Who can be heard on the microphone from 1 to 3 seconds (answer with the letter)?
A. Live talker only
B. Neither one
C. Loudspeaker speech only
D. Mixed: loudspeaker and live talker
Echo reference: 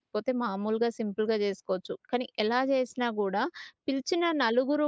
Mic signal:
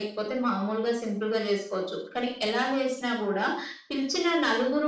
C